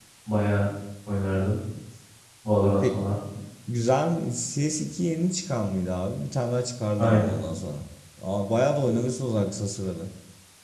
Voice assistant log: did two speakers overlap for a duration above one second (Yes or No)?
No